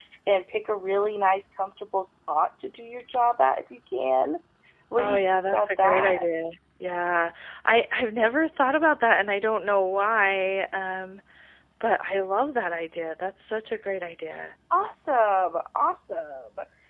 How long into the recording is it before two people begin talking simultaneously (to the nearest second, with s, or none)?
5 s